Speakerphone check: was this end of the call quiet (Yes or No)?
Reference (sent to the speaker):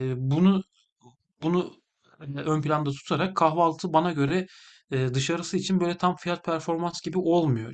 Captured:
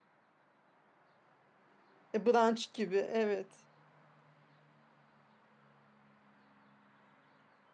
No